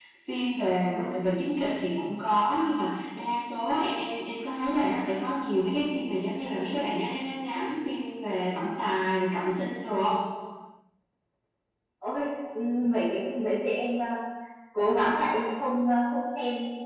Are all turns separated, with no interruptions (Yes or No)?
Yes